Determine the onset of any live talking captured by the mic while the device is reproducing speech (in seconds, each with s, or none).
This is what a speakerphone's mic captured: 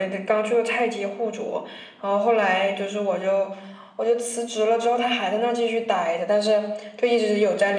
none